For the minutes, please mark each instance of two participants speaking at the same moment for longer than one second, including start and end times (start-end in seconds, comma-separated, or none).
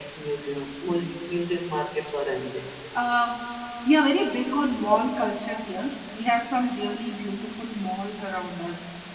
none